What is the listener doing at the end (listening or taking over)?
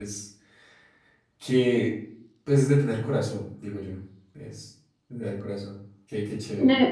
taking over